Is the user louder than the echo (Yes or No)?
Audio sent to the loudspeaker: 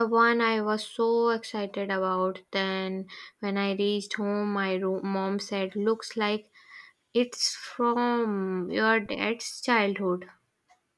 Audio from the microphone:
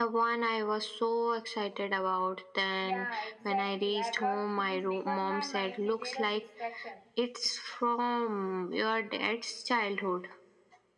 No